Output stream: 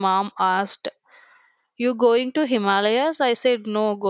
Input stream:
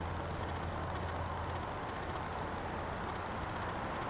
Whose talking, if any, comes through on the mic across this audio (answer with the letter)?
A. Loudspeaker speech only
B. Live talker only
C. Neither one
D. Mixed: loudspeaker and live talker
C